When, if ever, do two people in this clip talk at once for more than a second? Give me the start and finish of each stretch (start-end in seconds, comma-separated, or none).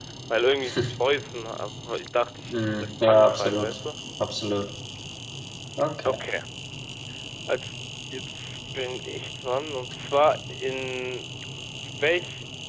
2.5-3.7